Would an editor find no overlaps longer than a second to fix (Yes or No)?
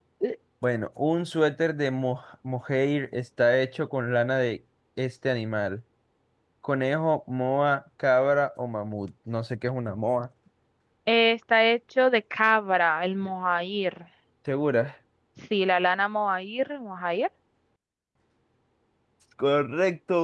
Yes